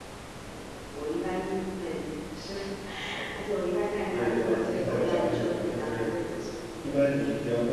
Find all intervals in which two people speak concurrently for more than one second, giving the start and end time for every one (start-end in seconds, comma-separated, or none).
4.1-6.3